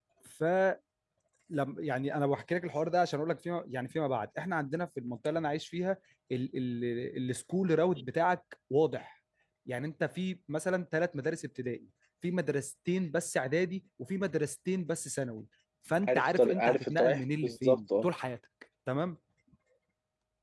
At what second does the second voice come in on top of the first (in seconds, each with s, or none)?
16.1 s